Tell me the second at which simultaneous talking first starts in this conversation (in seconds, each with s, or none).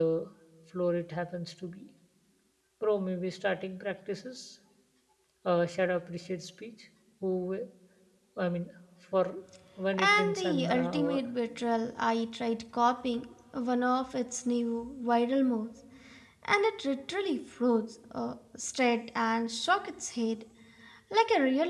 10.0 s